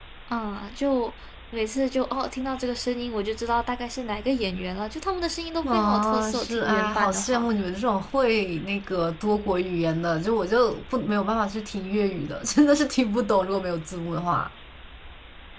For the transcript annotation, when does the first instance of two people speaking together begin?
5.6 s

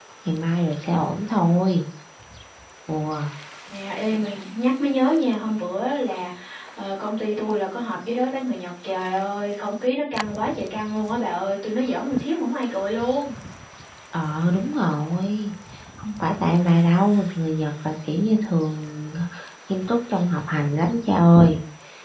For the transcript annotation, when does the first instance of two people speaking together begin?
none

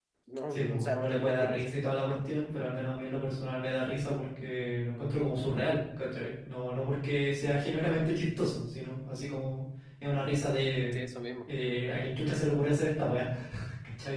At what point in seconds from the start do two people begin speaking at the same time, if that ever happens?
0.5 s

